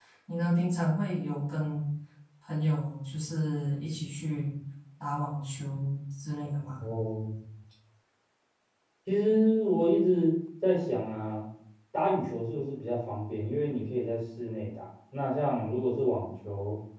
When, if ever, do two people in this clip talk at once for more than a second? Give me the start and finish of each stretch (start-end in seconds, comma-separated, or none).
none